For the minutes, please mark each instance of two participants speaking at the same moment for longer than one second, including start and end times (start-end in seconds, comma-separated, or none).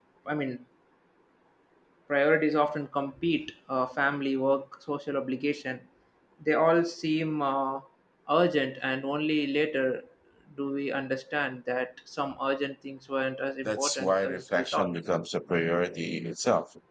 13.7-15.0